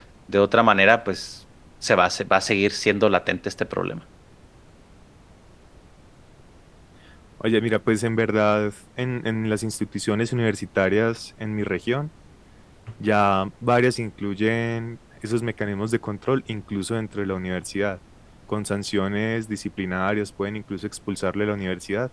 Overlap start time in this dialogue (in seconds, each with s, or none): none